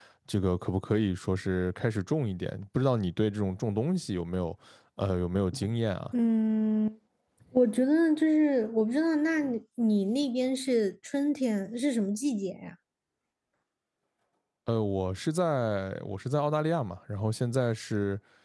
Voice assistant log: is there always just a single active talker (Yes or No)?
Yes